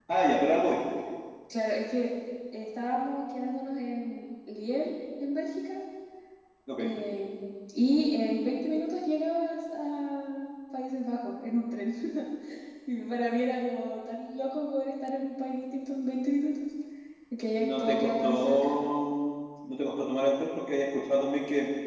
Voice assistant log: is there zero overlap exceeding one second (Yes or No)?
No